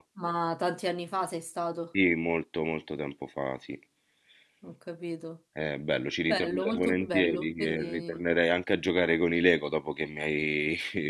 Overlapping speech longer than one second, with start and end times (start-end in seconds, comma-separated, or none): 6.2-8.2